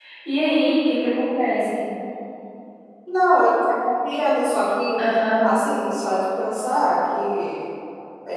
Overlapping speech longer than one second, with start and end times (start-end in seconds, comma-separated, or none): none